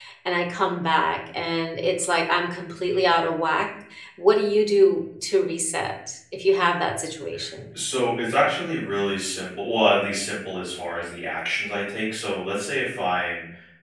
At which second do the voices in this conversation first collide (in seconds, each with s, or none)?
none